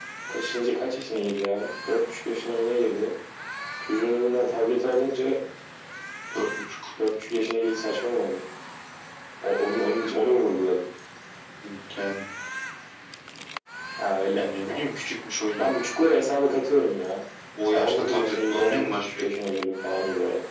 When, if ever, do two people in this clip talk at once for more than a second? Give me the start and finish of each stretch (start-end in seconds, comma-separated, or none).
17.6-19.2